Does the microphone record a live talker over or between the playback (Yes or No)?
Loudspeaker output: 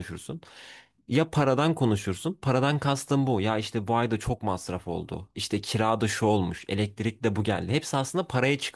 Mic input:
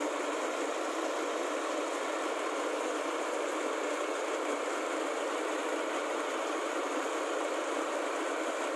No